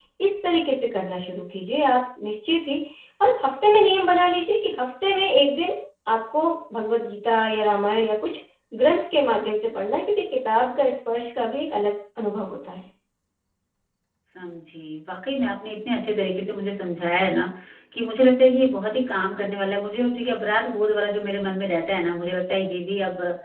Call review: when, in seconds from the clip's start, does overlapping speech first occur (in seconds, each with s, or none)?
none